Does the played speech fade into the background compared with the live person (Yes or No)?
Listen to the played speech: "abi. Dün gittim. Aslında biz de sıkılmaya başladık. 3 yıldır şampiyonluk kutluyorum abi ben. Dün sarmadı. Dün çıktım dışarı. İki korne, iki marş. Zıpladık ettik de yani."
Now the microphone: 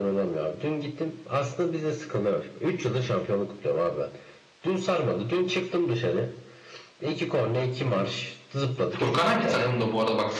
Yes